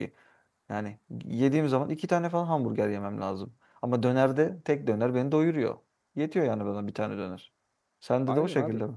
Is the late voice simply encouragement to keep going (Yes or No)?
No